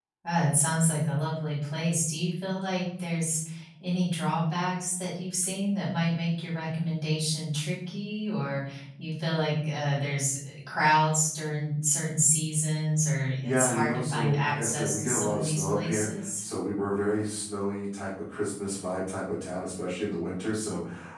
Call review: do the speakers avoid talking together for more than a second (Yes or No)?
No